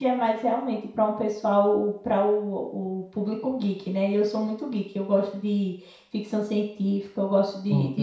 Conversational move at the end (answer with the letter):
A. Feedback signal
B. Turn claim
A